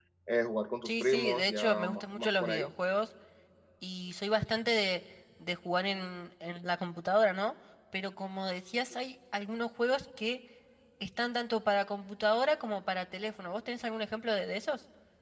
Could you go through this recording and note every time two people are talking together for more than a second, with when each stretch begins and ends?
0.8-2.7

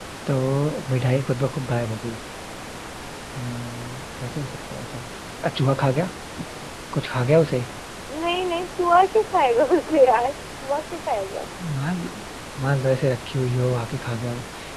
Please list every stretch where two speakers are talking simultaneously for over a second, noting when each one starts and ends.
none

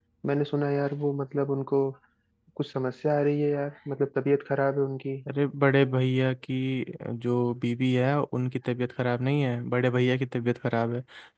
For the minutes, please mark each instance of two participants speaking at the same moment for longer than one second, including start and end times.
none

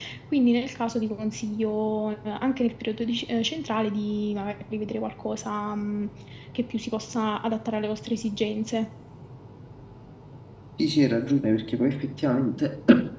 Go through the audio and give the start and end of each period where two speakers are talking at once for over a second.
none

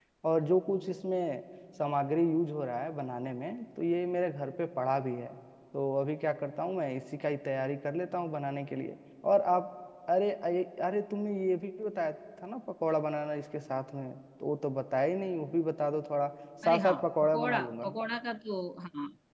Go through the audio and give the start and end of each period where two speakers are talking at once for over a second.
16.6-17.9

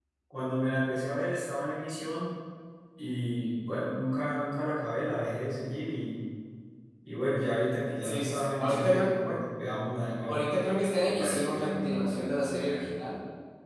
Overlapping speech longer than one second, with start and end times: 8.0-9.4, 11.0-12.9

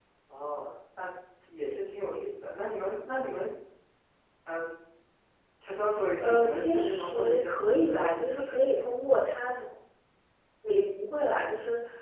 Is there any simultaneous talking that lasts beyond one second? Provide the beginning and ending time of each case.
6.2-8.6

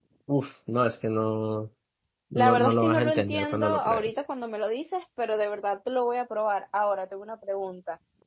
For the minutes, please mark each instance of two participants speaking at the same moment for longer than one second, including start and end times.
2.4-4.2

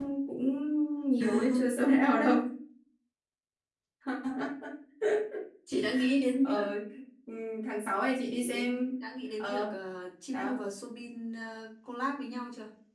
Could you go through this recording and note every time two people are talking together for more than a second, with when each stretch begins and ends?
none

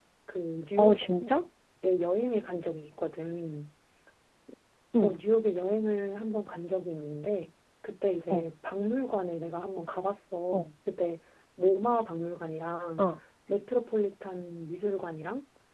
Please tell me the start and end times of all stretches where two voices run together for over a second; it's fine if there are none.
none

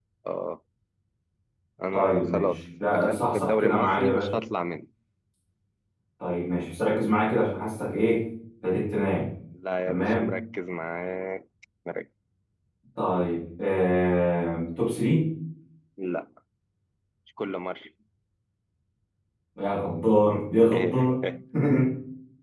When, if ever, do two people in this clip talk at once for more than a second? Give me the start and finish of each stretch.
1.9-4.4

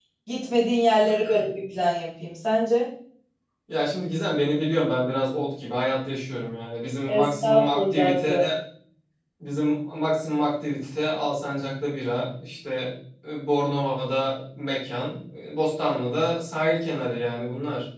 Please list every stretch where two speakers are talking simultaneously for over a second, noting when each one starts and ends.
7.1-8.4

